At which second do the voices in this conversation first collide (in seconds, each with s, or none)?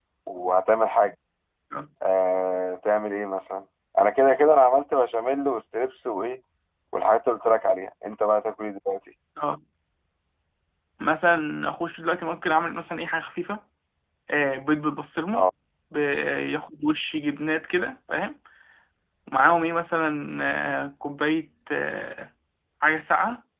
none